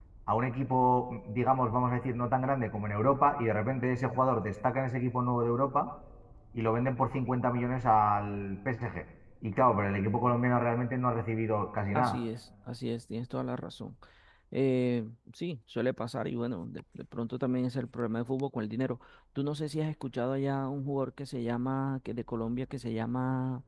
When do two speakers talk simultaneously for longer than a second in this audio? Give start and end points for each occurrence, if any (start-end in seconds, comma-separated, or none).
none